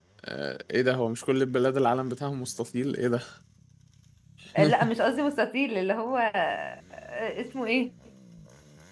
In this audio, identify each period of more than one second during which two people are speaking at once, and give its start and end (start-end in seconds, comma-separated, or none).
none